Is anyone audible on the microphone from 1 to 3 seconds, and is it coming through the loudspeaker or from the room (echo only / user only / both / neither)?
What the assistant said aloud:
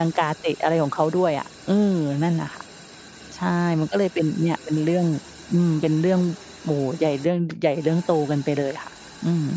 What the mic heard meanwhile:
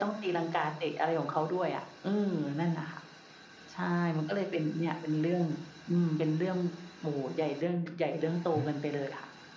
echo only